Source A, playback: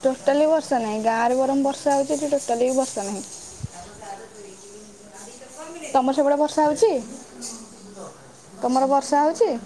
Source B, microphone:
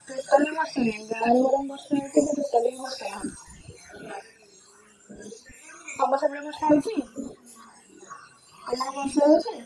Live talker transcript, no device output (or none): none